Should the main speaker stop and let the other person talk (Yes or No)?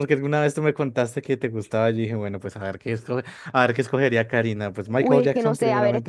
Yes